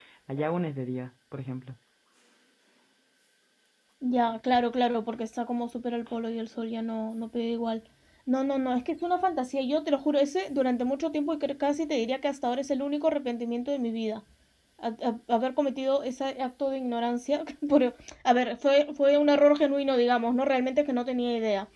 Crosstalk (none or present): none